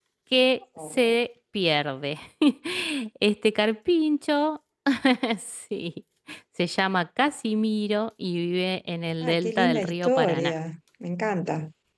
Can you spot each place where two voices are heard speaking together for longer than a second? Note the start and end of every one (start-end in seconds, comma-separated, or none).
9.2-10.5